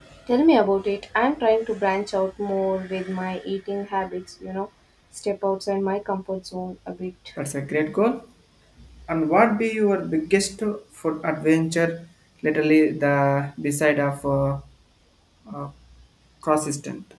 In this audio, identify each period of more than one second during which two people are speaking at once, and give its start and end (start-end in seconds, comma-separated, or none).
none